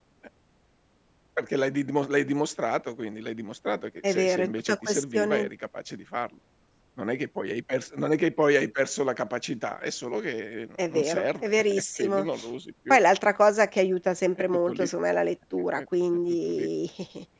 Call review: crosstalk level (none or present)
present